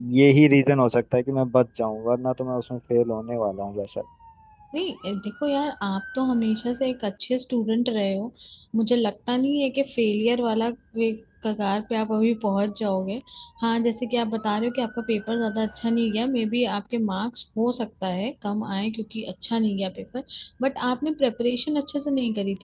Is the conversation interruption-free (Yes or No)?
Yes